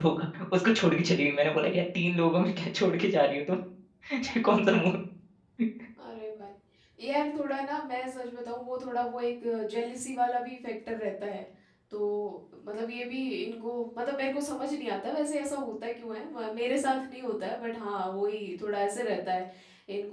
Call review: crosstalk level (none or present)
none